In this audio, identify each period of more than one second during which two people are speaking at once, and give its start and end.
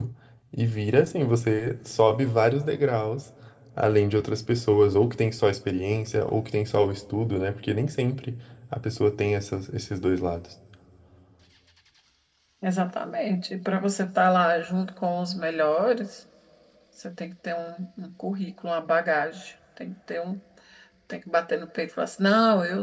none

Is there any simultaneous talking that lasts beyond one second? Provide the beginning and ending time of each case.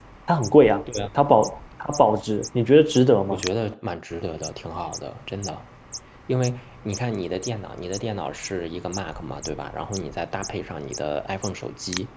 none

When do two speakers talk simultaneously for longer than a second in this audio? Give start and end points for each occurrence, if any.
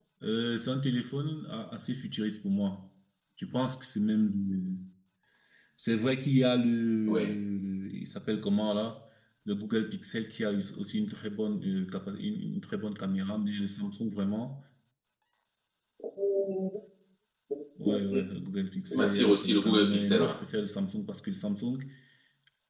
18.9-20.4

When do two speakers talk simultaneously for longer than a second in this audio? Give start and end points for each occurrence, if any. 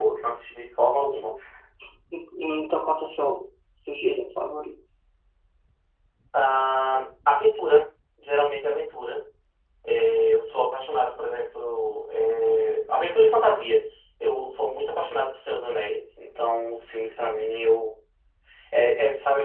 none

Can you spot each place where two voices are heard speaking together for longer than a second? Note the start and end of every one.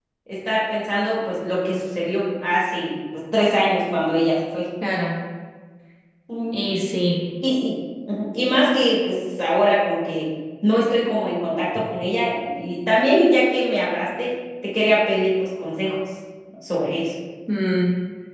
none

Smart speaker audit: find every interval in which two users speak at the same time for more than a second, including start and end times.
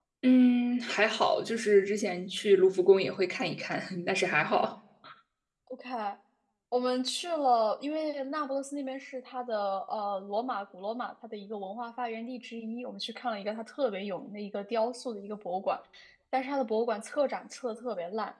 none

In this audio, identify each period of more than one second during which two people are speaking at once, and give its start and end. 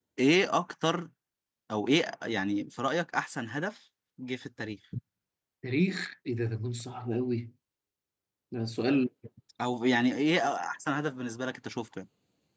none

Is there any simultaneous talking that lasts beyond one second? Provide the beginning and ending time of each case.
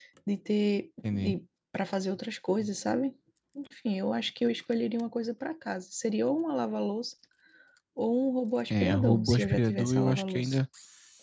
8.7-10.6

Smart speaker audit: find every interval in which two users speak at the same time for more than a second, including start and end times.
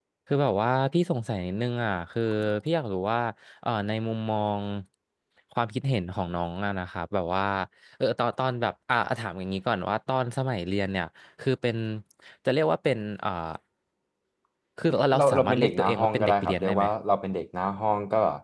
15.2-16.8

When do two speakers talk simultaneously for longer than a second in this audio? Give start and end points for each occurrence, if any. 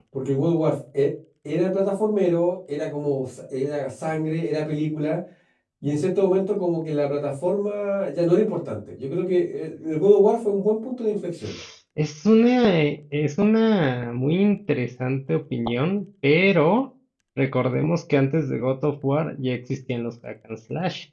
none

